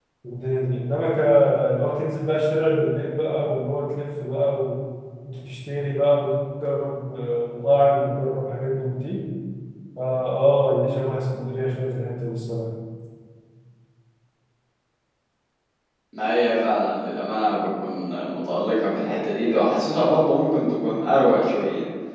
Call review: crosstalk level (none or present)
none